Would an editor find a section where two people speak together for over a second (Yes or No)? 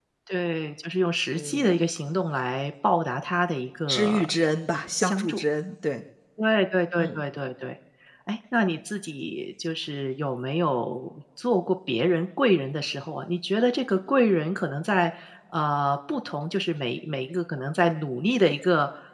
No